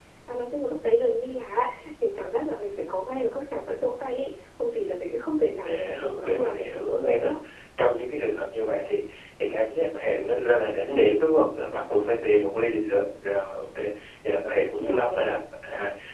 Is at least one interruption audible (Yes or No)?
Yes